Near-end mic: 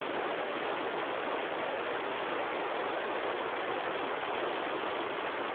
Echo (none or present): none